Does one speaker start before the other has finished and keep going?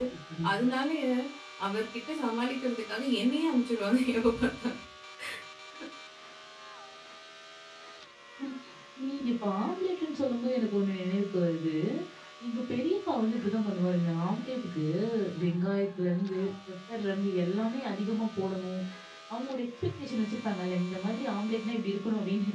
No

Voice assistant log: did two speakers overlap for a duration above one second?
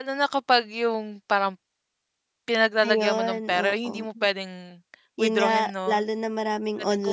Yes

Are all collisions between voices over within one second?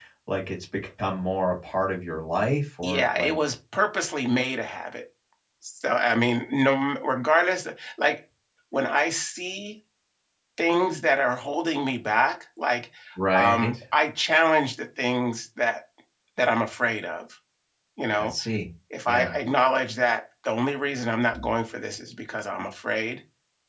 Yes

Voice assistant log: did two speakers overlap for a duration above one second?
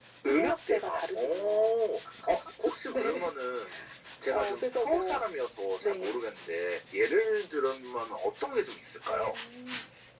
Yes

